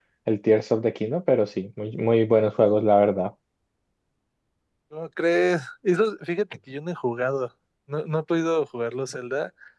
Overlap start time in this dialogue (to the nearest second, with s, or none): none